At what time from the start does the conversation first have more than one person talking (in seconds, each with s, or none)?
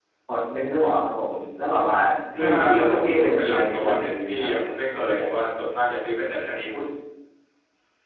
2.4 s